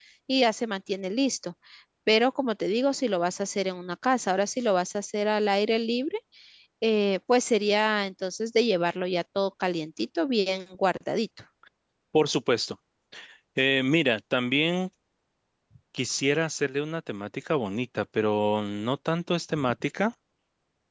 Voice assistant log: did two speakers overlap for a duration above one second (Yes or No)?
No